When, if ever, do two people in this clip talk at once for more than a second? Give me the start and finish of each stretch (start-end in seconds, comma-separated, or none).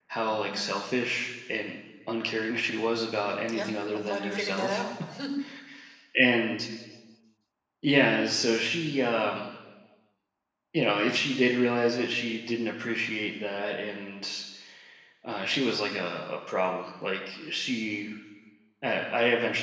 3.5-4.9